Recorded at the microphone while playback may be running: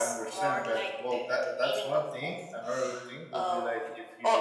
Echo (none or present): present